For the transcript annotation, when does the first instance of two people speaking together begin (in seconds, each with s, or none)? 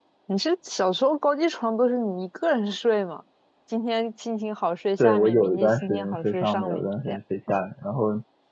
5.0 s